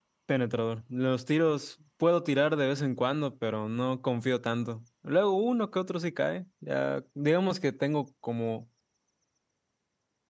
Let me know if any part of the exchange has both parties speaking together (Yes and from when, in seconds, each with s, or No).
No